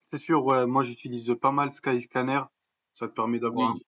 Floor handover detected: No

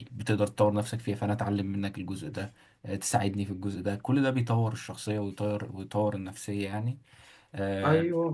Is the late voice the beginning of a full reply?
Yes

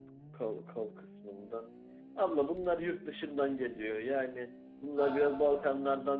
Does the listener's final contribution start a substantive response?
No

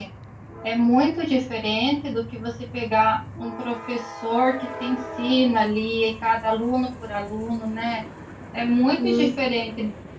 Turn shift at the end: No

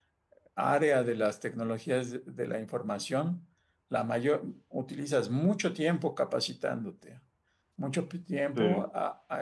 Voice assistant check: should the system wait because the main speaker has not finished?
Yes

